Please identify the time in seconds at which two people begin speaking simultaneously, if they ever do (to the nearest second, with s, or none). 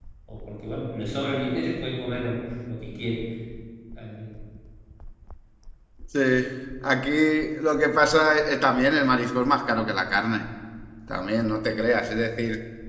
none